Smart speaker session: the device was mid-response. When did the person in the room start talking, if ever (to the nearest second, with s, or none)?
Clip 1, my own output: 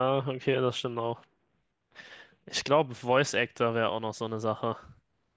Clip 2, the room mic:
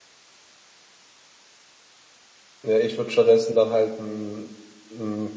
3 s